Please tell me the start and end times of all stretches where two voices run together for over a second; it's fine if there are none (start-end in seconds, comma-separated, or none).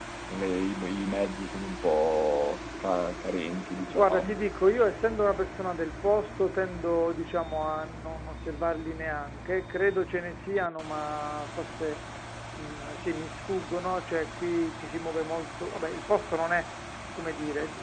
none